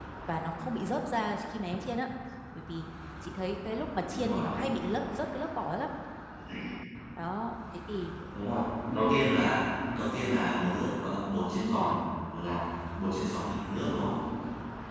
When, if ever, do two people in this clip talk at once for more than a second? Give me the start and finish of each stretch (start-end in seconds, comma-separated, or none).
none